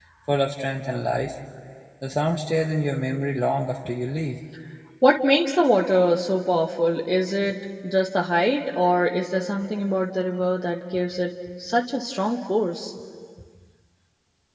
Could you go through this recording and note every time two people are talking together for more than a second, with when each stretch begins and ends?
none

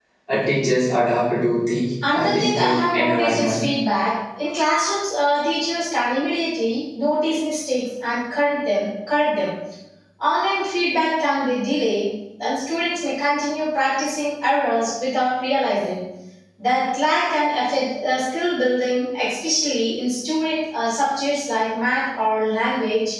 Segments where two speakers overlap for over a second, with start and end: 2.1-3.7

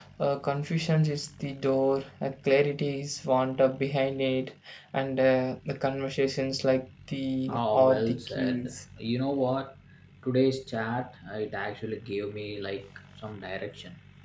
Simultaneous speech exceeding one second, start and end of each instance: 7.5-8.8

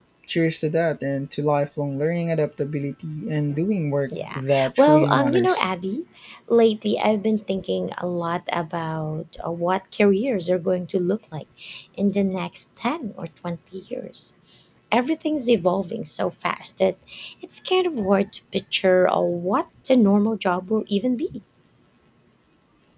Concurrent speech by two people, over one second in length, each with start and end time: 4.1-5.7

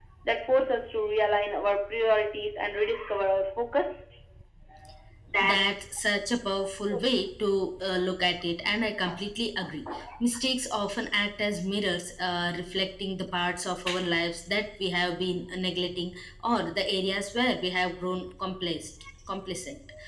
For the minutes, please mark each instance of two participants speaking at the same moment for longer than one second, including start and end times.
none

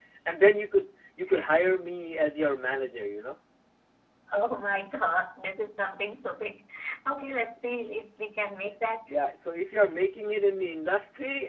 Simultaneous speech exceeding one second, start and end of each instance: none

